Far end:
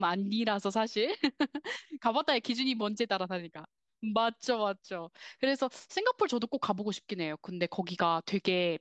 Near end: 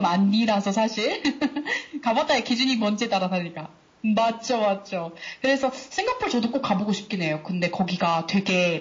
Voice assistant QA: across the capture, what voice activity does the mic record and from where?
echo only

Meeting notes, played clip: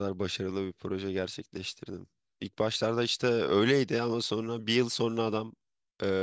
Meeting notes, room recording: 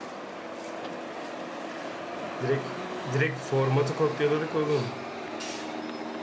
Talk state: user only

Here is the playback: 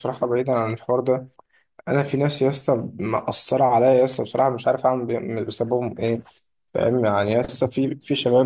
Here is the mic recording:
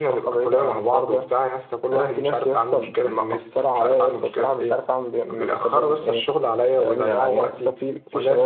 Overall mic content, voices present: both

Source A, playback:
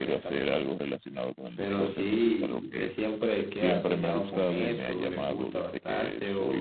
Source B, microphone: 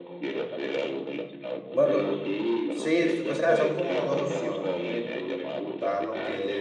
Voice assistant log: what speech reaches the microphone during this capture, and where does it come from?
both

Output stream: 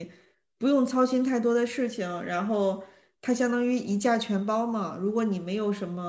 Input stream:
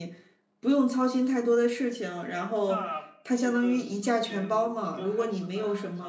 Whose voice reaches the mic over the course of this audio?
both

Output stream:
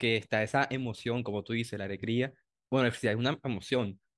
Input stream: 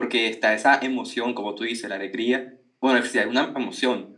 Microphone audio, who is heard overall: echo only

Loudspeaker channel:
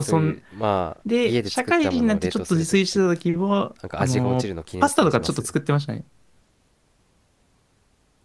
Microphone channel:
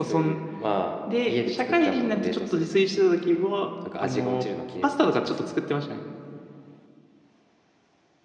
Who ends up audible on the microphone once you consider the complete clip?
echo only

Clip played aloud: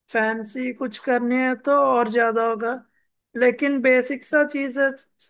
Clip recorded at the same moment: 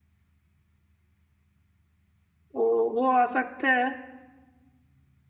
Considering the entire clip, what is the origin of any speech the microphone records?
user only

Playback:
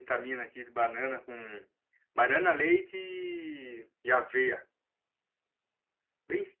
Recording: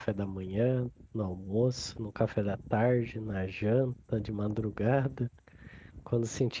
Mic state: user only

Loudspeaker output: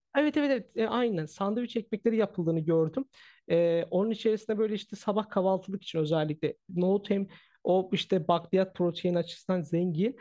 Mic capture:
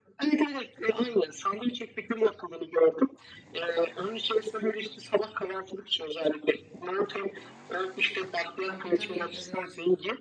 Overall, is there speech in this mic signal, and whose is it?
both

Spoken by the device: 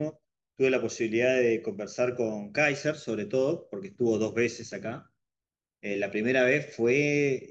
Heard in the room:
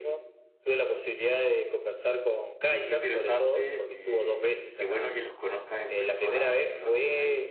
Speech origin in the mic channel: both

